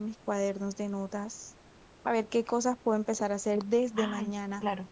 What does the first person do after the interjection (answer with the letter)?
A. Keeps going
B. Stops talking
A